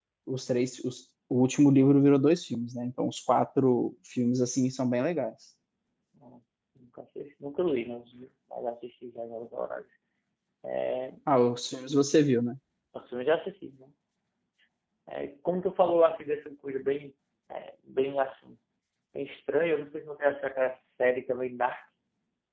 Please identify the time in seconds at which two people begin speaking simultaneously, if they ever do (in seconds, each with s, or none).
none